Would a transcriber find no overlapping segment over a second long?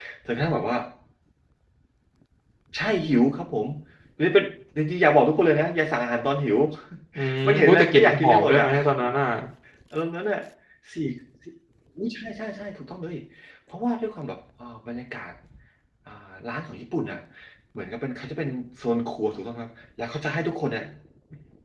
No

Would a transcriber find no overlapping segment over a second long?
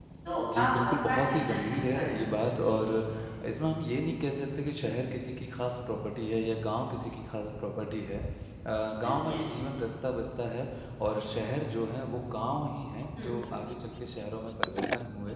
No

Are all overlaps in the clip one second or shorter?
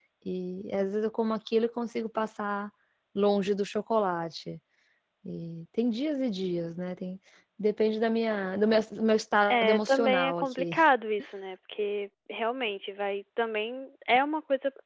No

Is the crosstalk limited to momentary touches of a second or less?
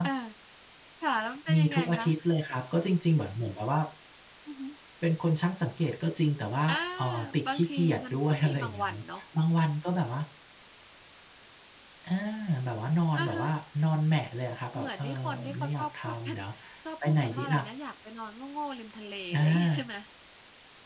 No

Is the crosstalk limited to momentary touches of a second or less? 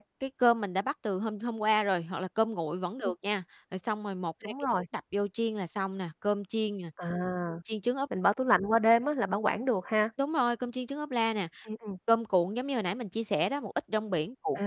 Yes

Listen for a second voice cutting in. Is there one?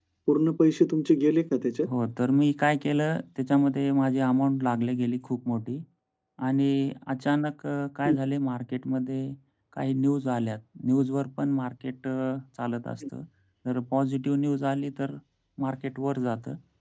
No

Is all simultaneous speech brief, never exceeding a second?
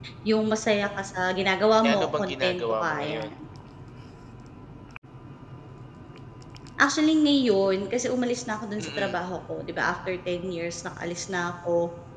No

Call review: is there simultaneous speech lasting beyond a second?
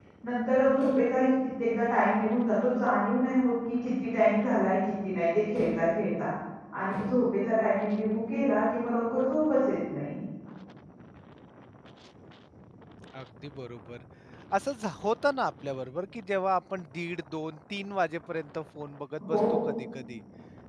No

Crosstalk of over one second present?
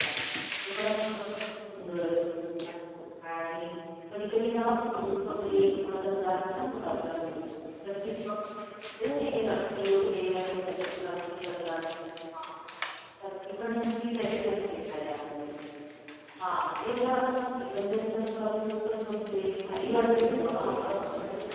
Yes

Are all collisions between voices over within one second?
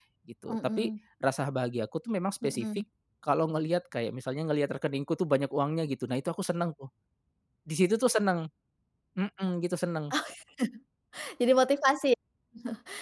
Yes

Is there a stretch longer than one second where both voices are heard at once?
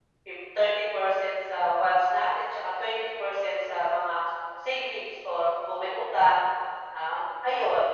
No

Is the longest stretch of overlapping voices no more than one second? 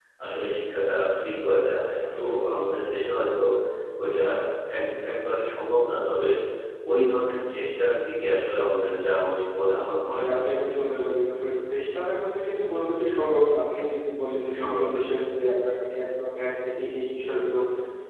Yes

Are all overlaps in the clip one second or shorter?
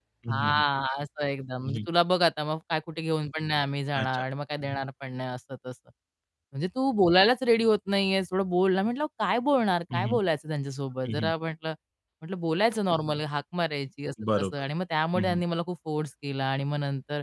Yes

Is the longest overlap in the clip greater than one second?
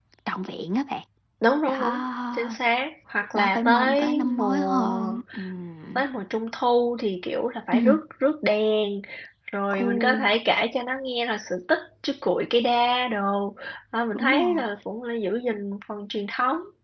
Yes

